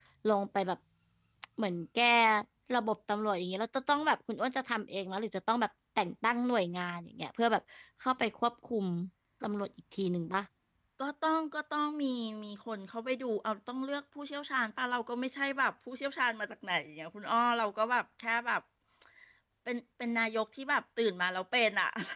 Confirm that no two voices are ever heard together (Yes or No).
Yes